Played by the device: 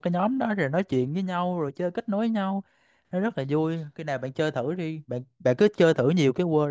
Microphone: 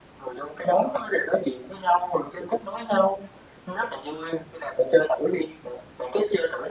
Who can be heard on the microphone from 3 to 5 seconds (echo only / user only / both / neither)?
echo only